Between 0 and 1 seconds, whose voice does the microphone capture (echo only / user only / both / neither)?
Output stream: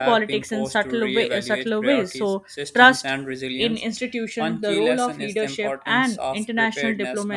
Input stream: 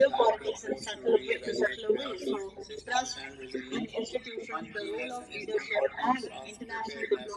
echo only